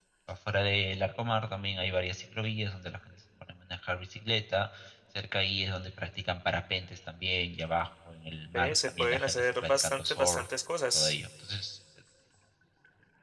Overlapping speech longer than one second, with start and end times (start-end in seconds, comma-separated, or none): 8.5-10.5